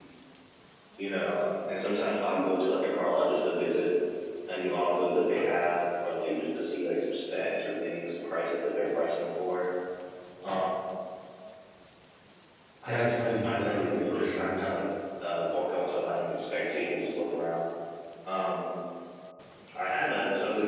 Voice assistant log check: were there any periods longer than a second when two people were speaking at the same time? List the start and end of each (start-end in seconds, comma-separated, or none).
12.8-14.6